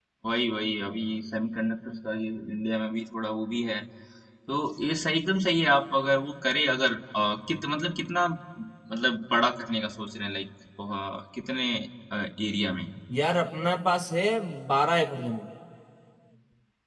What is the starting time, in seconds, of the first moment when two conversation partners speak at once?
none

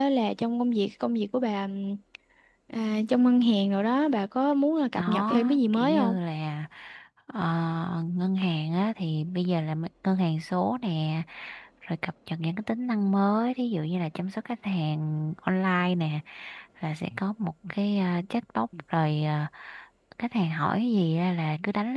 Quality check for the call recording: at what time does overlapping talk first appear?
5 s

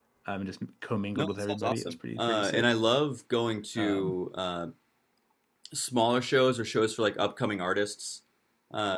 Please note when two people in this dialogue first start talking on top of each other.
1 s

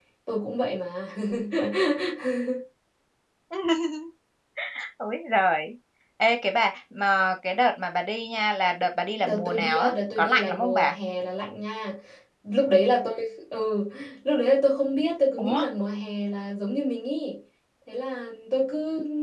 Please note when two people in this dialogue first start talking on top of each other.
9 s

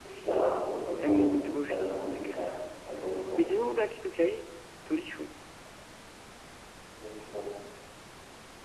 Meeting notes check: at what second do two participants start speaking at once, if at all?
1 s

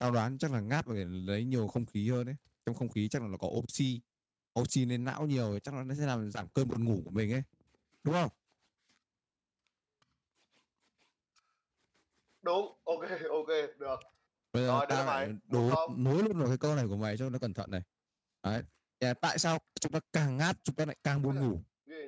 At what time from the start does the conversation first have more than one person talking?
15 s

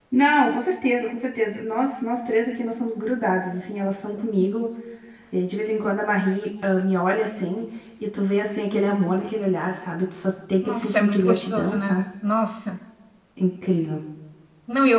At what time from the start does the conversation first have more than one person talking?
11 s

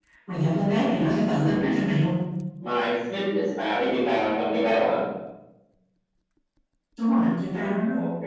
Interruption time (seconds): none

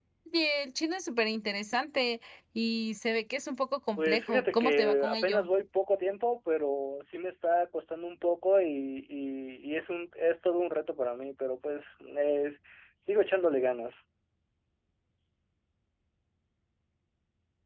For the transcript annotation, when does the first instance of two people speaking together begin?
4 s

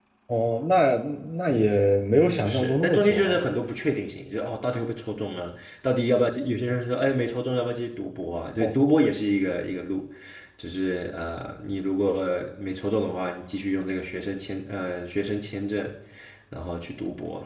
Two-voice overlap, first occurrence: 1 s

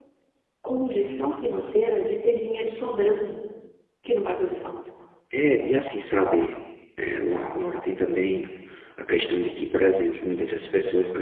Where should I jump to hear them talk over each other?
none

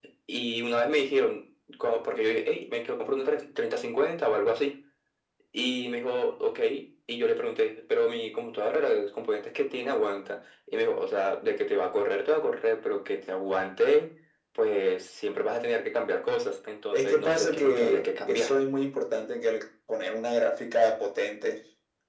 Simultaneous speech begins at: 17 s

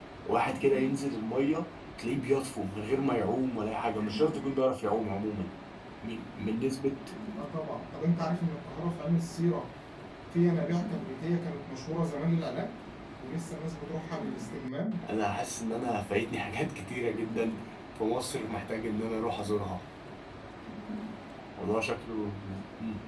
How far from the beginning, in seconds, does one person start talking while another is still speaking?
none

